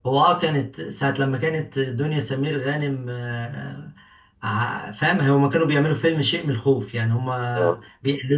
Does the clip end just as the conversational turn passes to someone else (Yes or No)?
No